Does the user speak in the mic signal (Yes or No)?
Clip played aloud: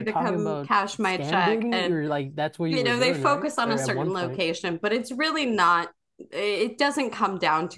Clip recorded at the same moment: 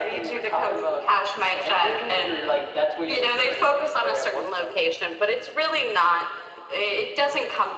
No